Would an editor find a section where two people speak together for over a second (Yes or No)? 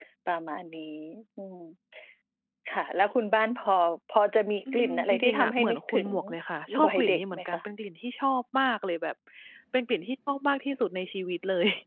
Yes